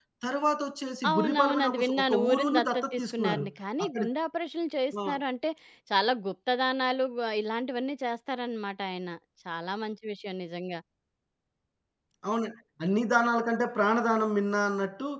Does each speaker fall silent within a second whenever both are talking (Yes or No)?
No